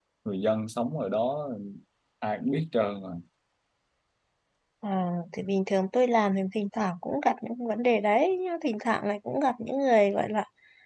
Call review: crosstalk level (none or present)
none